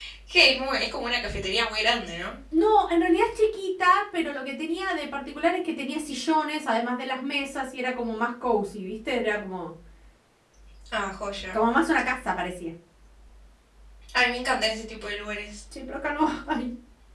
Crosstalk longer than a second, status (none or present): none